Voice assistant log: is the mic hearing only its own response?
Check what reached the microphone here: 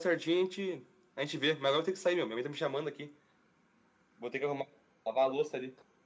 Yes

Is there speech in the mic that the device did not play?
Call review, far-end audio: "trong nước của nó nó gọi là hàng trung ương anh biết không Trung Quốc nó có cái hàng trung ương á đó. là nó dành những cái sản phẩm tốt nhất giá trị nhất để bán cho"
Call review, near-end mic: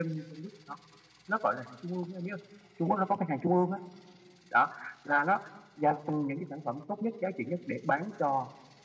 No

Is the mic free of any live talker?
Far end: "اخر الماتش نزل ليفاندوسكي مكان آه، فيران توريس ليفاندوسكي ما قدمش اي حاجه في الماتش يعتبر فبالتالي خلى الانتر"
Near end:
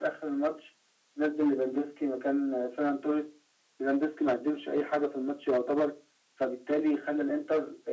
Yes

